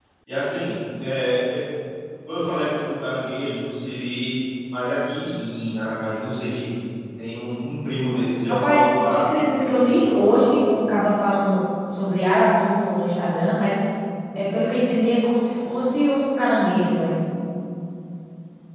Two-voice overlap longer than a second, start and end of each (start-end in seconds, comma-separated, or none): 8.5-10.5